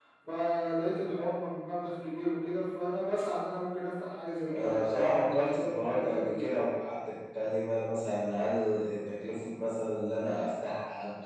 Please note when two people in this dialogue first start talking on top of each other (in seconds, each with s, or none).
4.5 s